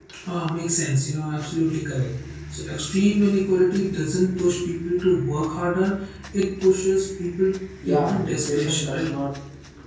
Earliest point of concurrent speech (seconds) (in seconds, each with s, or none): 7.8 s